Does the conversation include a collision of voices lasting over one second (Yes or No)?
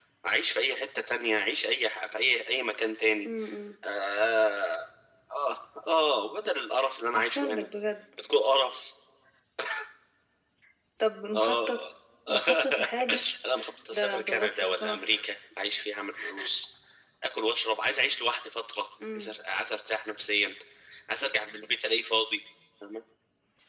Yes